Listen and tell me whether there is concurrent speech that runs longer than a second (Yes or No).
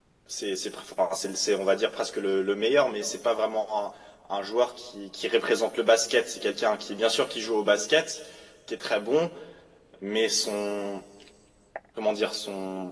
No